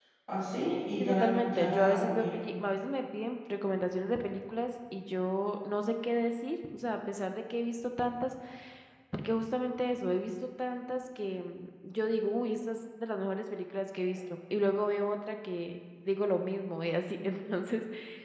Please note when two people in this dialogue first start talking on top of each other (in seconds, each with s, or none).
1.0 s